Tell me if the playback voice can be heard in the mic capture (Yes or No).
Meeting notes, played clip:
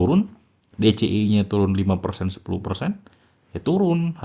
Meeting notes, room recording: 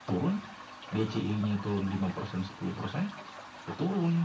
Yes